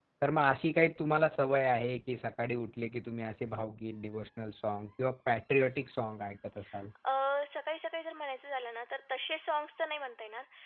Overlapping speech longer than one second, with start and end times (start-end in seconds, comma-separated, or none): none